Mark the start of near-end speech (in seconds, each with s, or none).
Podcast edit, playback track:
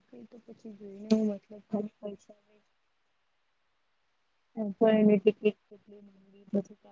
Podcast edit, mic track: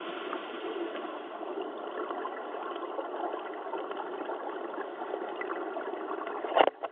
none